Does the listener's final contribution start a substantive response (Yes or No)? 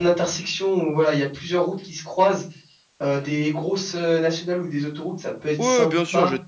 Yes